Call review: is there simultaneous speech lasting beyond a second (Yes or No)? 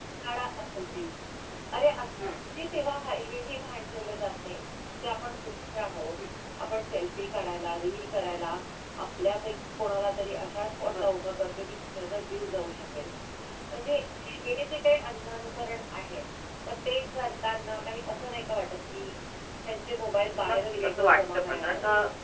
Yes